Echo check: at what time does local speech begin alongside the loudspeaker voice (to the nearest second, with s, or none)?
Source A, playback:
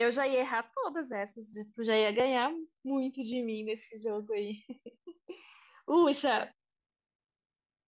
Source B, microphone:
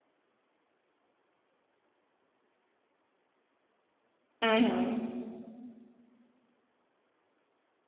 4 s